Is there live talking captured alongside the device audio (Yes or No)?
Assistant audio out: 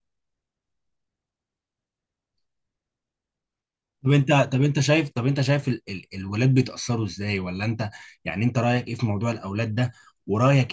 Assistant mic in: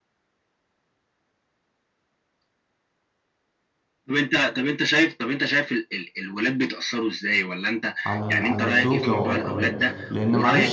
Yes